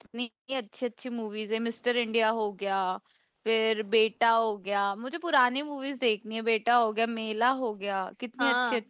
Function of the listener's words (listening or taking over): taking over